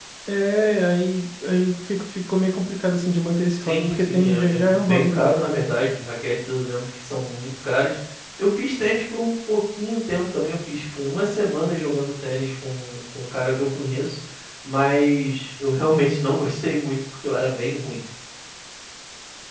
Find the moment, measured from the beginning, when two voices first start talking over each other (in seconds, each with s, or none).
3.6 s